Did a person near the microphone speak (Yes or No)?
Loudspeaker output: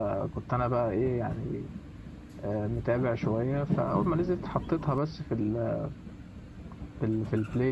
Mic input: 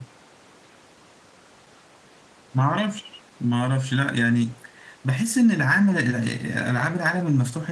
Yes